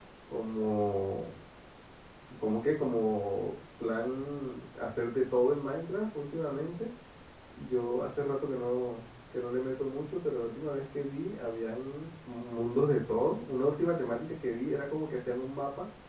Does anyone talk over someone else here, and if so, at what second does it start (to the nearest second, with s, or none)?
none